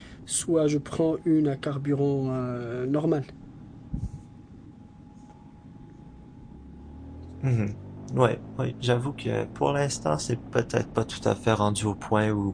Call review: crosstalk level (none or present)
none